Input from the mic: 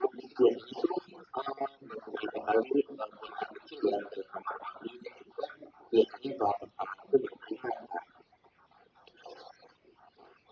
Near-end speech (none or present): none